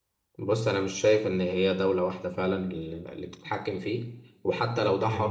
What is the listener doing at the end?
listening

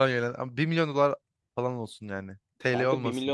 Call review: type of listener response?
taking over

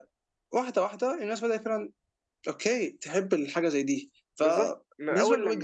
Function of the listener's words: taking over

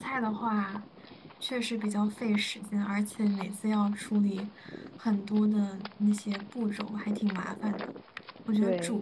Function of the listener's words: listening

